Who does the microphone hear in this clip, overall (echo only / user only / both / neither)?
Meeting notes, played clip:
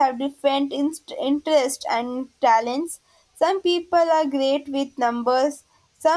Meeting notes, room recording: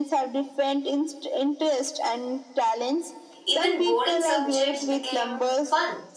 both